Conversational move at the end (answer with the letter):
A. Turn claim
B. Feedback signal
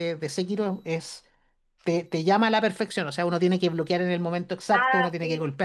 B